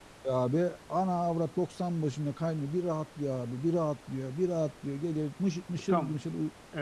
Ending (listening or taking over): taking over